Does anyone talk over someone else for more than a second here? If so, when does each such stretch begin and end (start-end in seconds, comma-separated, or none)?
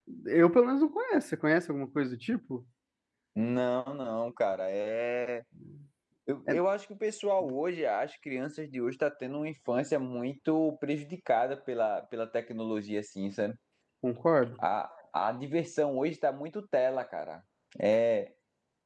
none